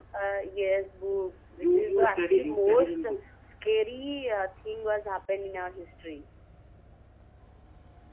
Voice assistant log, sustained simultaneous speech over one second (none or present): present